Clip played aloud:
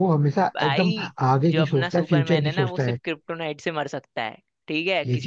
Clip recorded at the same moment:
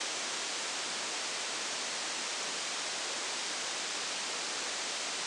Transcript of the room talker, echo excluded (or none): none